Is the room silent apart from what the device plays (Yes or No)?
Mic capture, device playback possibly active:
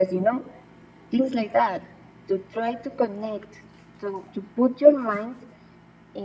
Yes